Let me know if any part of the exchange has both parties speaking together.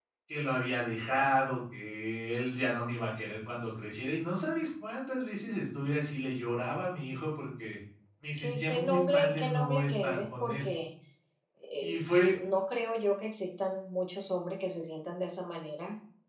Yes, from 8.4 s

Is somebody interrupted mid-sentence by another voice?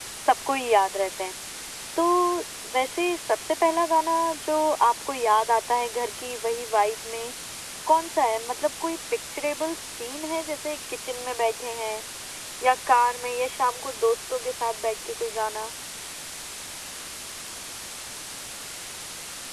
No

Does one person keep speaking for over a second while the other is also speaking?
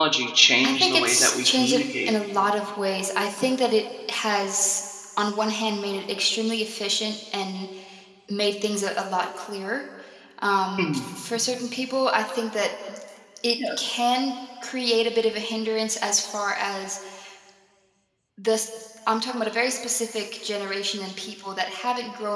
Yes, from 0.6 s

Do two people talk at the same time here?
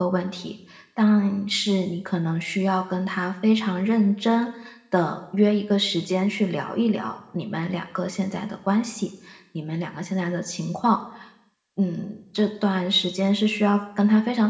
No

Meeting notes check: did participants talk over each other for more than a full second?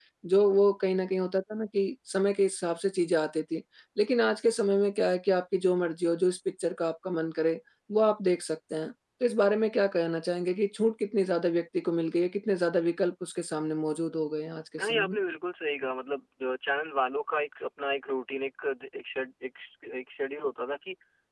No

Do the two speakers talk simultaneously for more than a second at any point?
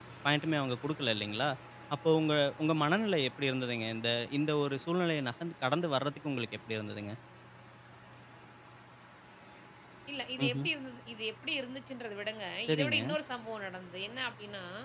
No

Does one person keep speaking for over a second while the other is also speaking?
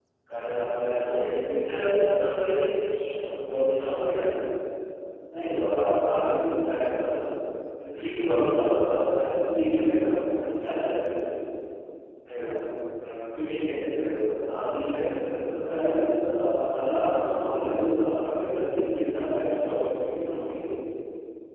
Yes, from 0.9 s

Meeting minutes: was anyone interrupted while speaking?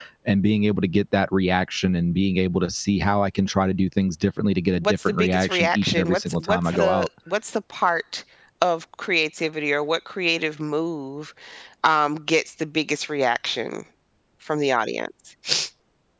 Yes, from 4.8 s

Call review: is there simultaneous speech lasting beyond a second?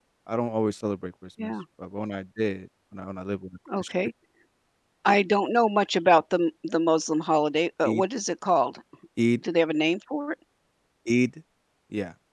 No

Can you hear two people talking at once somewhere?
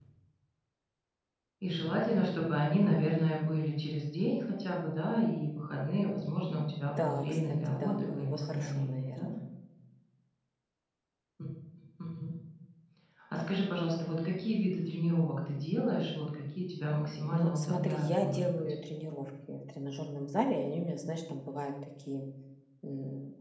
Yes, from 7.0 s

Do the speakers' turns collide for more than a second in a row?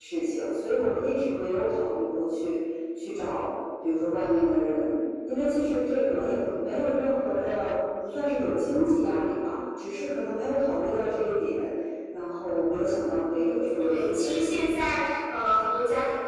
Yes, from 13.3 s

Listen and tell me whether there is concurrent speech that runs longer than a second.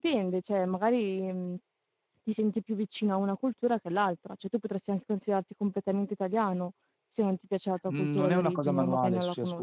Yes, from 7.9 s

